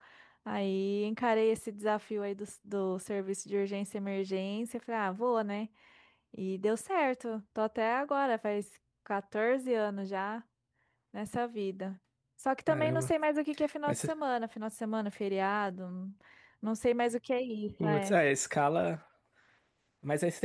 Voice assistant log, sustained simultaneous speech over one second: none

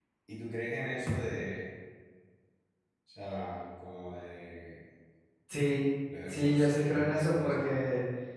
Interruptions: present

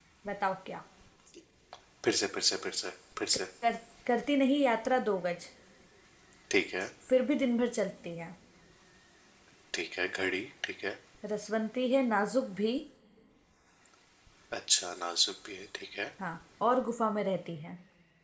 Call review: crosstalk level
none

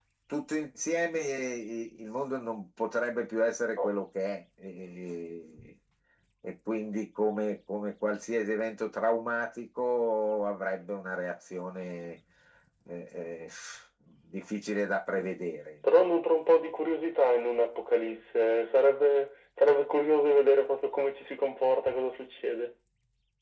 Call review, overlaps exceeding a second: none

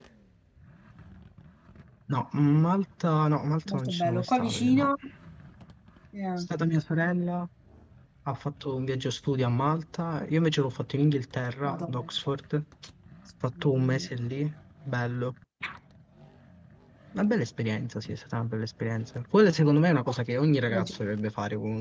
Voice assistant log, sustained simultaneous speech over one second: present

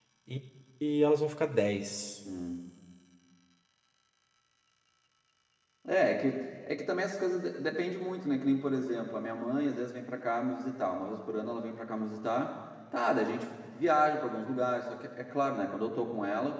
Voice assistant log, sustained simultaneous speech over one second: none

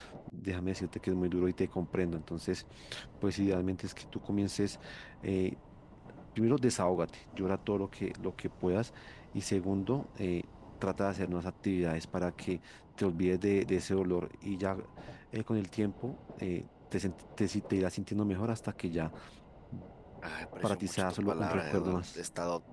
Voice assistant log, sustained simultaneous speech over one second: present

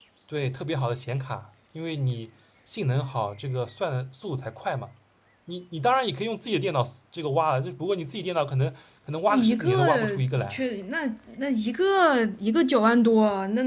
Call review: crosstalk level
present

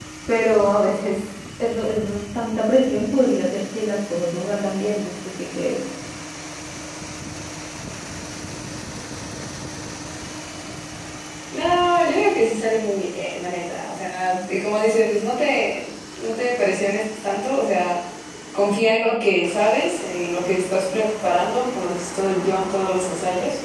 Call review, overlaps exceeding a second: none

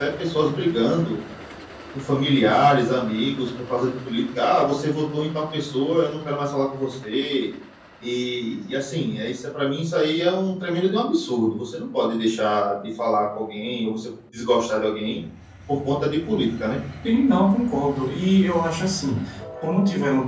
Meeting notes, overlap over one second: none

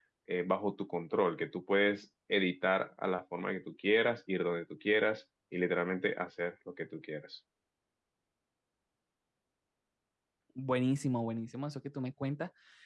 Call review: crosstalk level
none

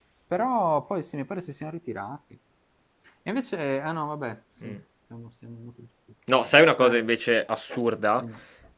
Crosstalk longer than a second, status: none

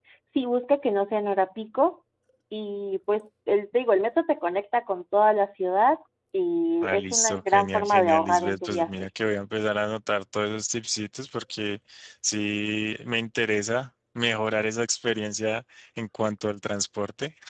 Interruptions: present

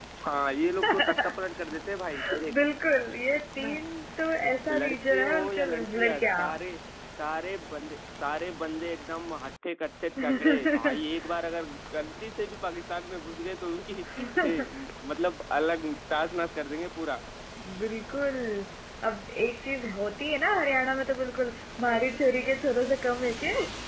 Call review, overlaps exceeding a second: present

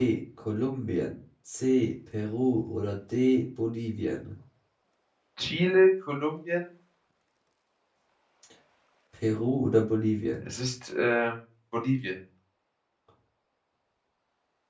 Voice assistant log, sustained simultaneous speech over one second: none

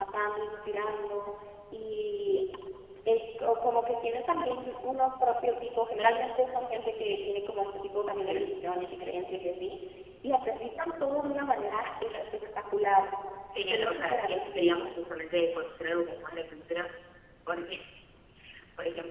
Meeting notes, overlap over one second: present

